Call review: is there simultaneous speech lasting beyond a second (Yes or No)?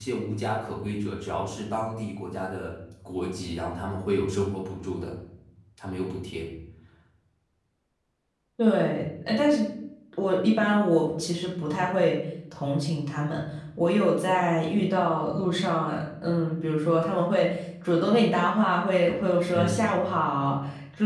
No